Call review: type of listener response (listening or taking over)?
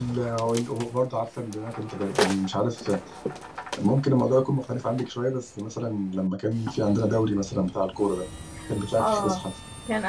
taking over